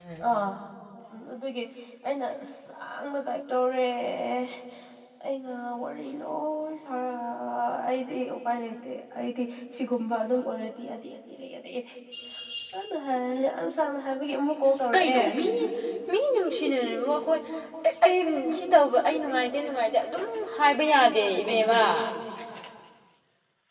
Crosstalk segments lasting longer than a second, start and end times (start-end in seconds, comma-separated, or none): none